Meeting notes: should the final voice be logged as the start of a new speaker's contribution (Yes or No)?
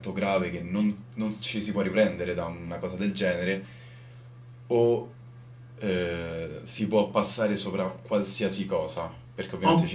No